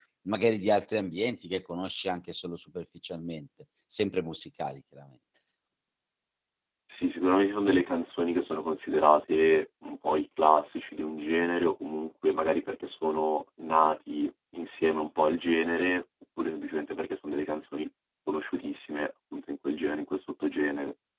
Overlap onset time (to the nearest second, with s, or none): none